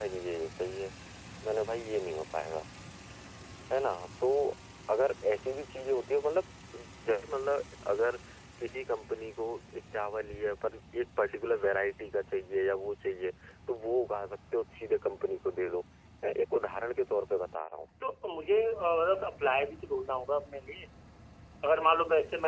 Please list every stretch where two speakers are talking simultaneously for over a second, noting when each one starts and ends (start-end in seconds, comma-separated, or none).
none